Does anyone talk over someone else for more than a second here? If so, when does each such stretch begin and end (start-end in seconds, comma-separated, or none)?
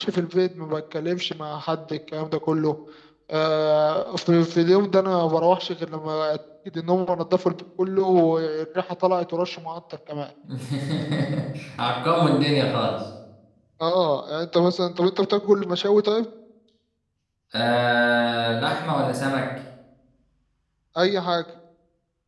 none